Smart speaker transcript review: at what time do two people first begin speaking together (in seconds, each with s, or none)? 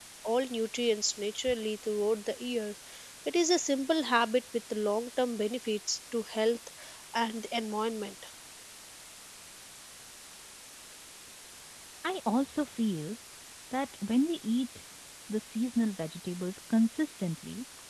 none